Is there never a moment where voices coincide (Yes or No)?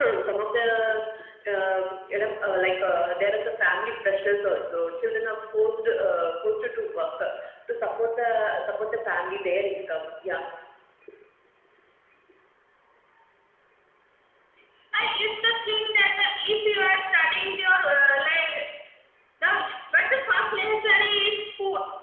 Yes